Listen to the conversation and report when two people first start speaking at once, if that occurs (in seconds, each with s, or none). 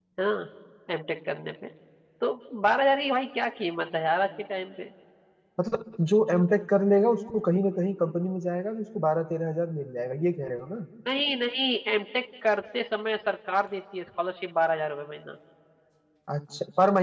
none